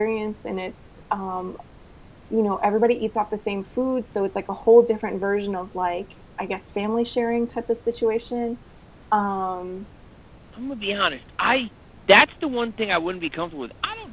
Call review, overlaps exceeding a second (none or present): none